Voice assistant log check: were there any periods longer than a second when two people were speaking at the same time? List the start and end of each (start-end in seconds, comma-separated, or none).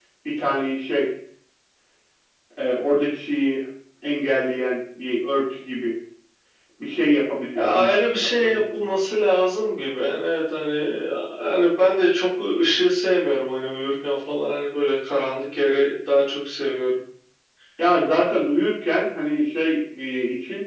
7.5-8.8